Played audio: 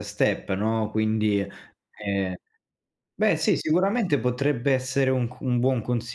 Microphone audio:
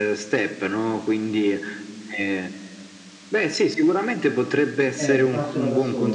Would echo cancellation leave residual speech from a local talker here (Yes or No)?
Yes